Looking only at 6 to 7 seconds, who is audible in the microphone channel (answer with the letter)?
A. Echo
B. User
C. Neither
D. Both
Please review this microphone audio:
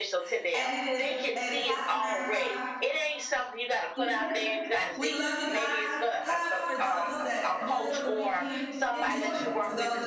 D